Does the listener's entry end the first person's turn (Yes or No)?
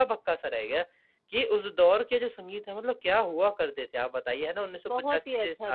Yes